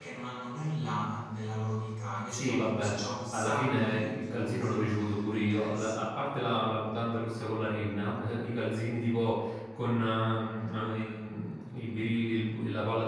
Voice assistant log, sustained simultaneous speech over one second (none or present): present